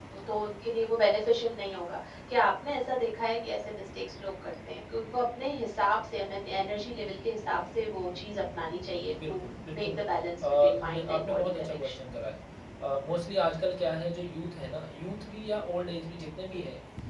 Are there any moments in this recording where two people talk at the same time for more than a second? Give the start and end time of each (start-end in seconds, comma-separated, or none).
10.4-12.0